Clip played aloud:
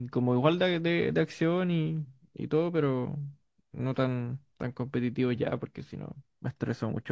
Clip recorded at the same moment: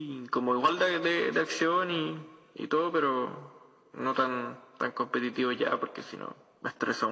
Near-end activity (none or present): none